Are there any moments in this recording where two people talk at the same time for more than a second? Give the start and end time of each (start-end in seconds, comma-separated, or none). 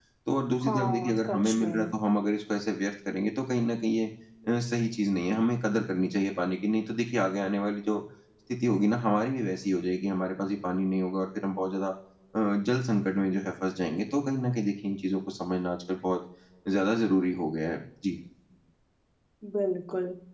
0.6-1.9